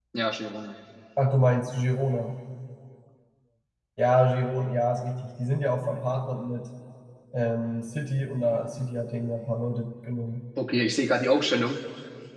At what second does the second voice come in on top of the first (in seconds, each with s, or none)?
none